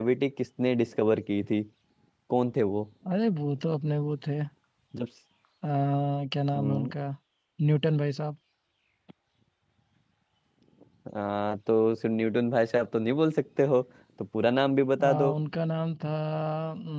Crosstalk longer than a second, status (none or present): none